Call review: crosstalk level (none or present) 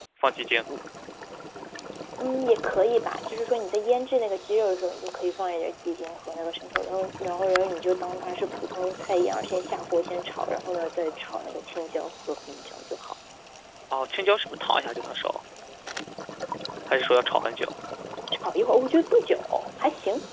none